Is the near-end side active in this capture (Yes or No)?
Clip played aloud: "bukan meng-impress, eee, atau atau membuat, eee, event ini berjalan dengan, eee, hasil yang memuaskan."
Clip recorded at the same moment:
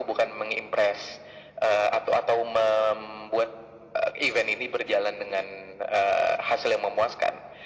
No